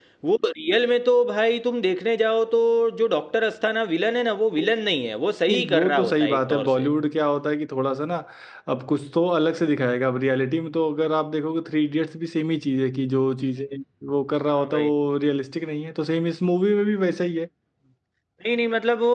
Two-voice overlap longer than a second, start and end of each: 5.5-6.9

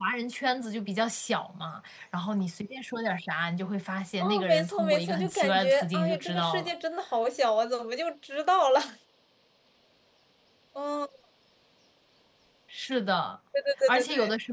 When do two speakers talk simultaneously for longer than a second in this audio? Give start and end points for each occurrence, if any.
4.2-6.7

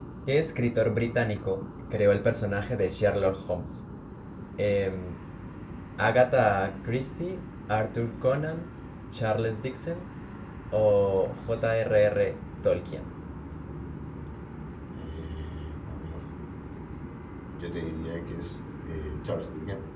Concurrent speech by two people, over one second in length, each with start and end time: none

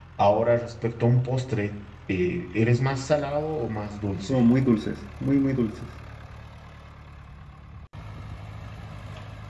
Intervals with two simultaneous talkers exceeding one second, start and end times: none

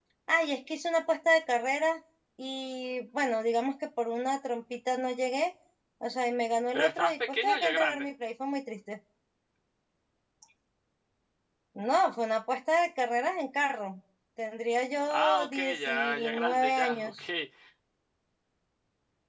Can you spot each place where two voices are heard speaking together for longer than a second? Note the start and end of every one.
6.7-8.1, 15.1-17.2

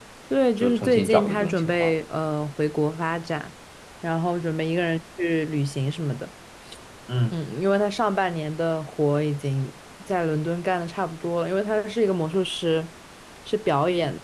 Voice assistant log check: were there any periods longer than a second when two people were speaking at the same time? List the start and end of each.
0.6-1.9

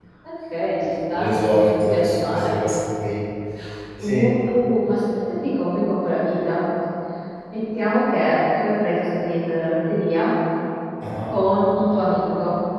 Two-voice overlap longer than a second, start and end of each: 1.1-2.6

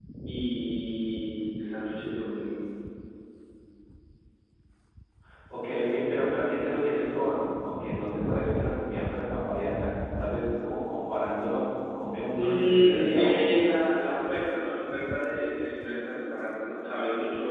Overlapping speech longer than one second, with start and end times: 12.3-13.6

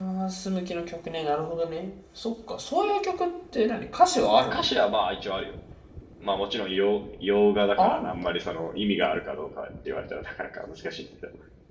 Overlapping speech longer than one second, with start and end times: none

